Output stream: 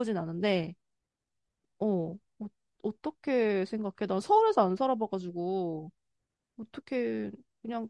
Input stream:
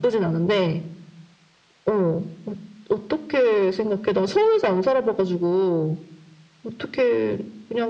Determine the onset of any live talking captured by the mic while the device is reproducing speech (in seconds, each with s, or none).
none